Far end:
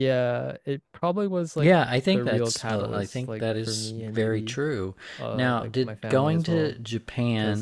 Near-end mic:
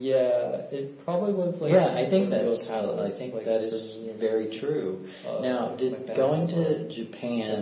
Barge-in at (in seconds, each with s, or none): none